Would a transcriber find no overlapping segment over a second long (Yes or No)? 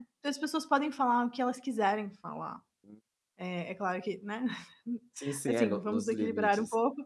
No